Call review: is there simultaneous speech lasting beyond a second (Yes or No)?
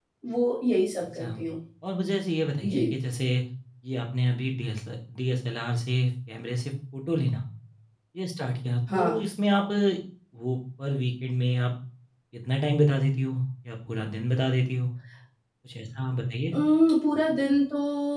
No